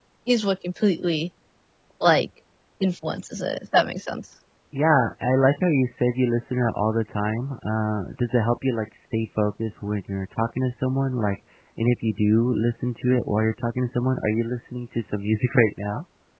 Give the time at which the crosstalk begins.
none

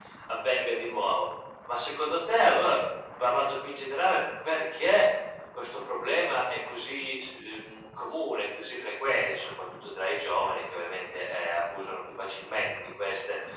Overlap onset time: none

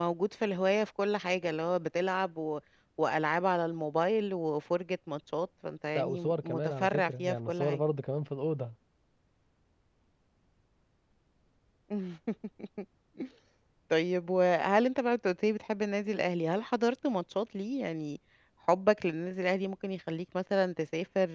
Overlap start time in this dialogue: 6.0 s

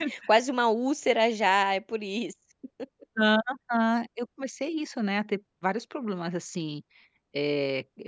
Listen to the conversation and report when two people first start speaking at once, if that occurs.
none

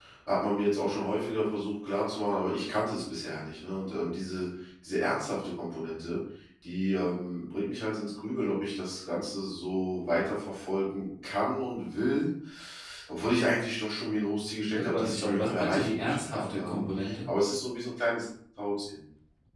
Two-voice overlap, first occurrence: 14.7 s

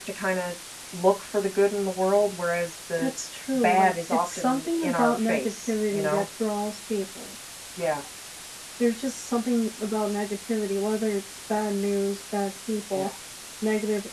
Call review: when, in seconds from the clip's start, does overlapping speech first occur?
3.5 s

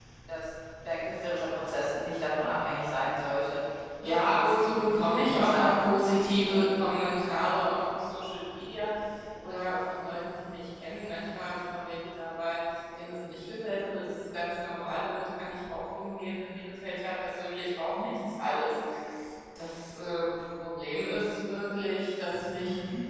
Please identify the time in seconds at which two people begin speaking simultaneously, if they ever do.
4.1 s

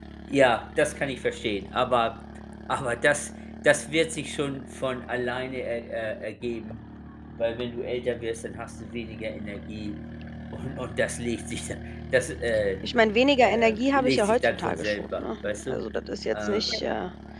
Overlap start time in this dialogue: 13.4 s

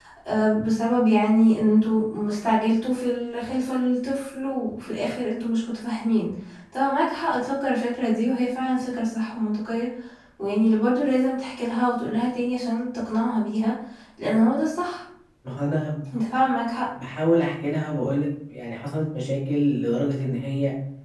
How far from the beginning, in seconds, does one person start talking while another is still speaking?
none

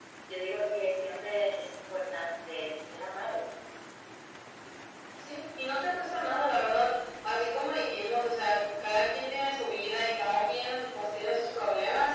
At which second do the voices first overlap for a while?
none

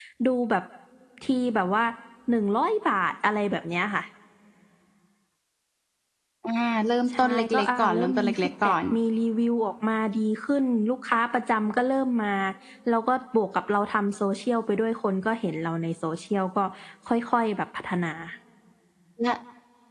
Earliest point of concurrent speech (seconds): 7.2 s

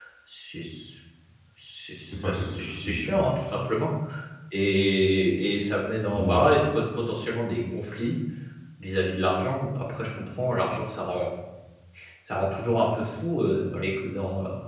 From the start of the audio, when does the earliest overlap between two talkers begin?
2.0 s

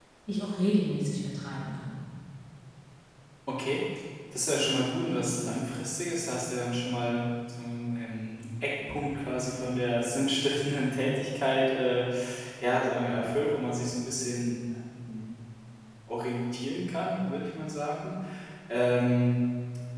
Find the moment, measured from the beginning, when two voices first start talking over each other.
none

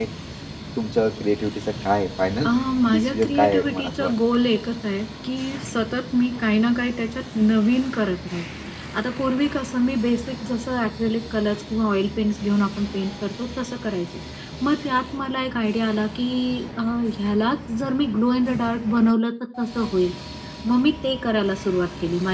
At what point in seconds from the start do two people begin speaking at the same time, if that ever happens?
2.9 s

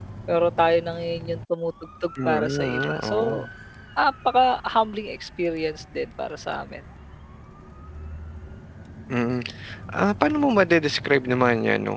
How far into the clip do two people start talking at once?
2.2 s

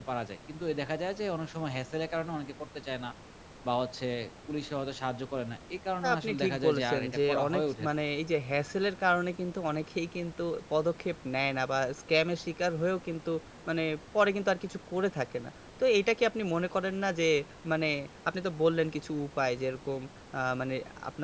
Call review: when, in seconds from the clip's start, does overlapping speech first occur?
6.0 s

